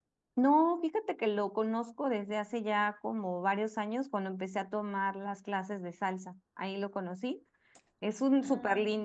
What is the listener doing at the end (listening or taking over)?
listening